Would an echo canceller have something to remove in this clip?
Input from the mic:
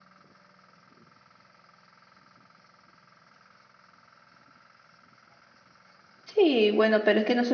No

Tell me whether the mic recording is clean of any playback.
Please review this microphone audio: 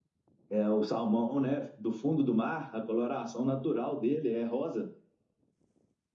Yes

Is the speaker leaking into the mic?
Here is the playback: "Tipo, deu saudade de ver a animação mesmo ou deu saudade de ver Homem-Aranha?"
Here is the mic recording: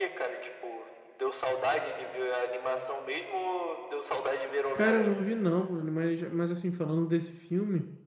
Yes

